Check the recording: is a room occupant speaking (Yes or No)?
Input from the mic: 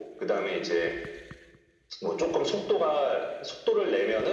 No